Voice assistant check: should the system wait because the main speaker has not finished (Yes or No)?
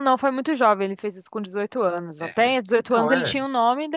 Yes